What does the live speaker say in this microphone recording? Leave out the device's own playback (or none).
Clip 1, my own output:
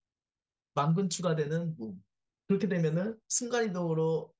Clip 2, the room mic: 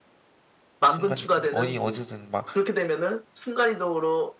순간이동이 어디 어디든 막